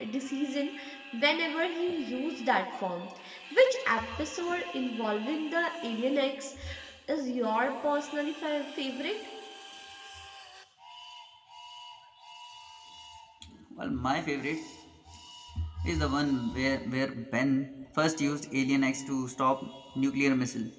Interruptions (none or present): none